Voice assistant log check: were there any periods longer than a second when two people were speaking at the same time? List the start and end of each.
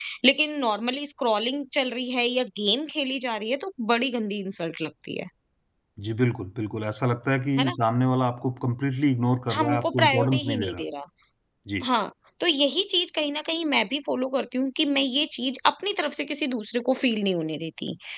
9.5-10.8

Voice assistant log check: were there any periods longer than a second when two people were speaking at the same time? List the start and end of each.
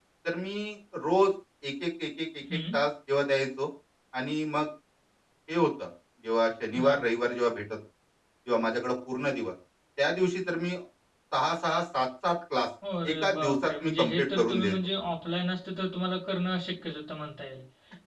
13.1-14.7

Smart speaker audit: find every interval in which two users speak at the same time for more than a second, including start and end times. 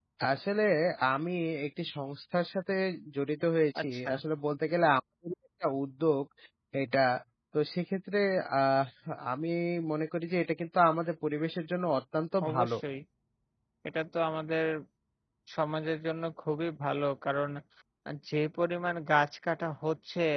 none

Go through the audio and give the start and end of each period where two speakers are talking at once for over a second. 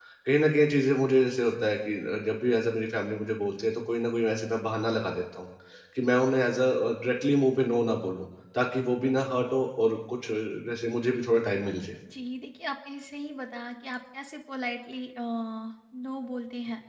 none

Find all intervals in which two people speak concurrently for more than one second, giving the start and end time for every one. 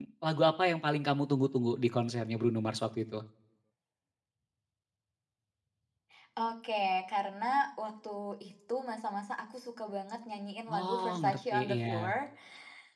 10.7-12.1

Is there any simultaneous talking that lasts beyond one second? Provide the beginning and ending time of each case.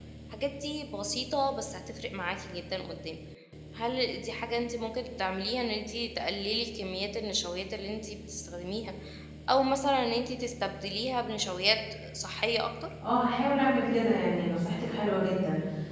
none

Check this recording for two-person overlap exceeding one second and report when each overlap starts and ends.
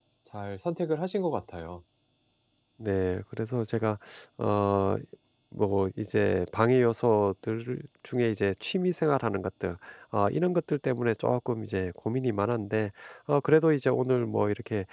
none

